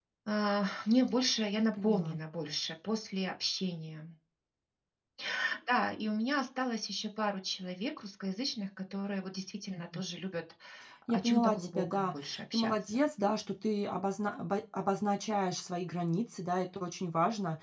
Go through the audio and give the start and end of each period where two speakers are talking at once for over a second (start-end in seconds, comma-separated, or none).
11.1-12.7